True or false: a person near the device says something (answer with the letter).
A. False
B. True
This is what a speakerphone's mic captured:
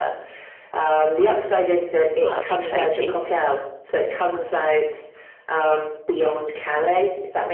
B